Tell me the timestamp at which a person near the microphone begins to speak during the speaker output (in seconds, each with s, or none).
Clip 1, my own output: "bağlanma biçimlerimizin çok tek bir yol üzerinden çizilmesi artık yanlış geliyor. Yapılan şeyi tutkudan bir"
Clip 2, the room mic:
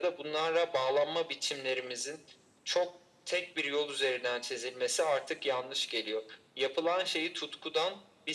none